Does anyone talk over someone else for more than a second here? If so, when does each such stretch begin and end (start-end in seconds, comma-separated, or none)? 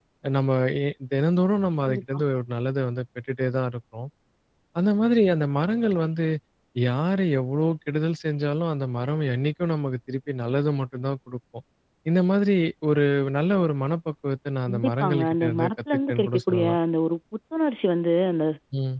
14.7-16.8